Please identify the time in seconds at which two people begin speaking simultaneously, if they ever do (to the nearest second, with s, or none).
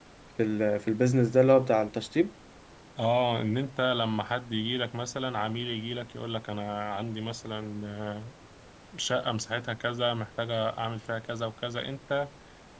none